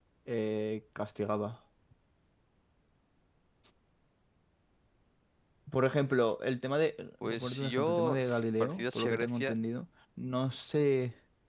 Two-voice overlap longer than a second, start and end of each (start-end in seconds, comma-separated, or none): 7.2-9.5